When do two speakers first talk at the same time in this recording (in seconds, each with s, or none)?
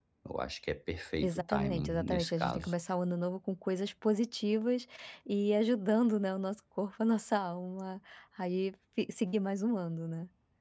1.2 s